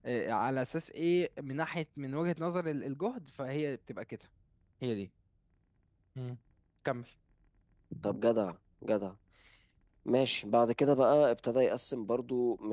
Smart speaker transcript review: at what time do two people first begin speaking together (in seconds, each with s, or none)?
none